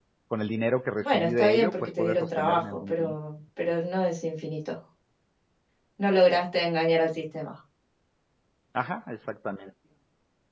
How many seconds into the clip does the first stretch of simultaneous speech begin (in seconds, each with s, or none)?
1.0 s